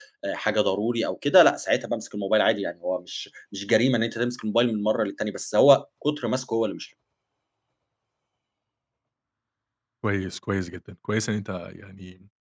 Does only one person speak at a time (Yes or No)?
Yes